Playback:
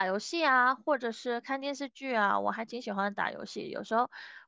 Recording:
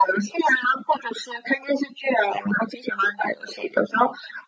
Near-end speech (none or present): none